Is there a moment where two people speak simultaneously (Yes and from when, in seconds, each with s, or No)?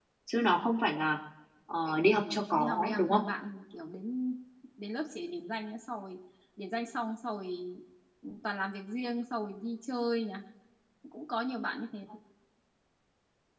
Yes, from 1.9 s